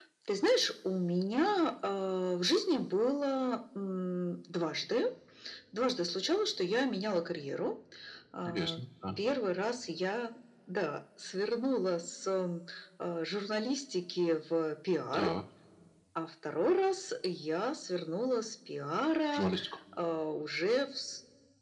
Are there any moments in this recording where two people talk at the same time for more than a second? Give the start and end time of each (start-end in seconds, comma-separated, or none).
none